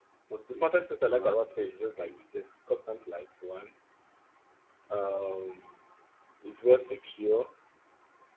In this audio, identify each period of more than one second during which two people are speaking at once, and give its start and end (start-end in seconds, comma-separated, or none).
0.5-2.2